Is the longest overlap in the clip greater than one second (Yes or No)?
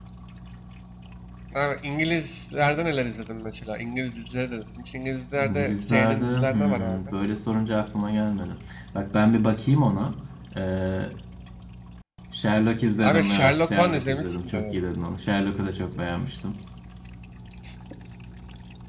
Yes